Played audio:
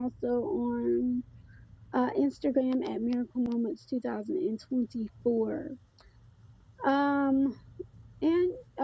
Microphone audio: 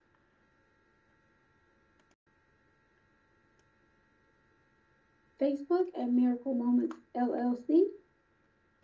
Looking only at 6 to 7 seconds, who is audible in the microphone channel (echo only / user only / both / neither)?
user only